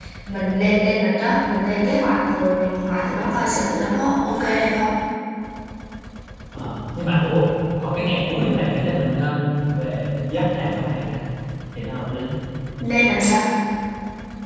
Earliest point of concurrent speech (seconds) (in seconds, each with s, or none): none